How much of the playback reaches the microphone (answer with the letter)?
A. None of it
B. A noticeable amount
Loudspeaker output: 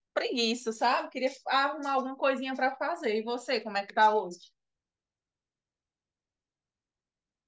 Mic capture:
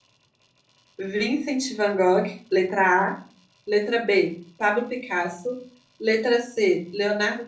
A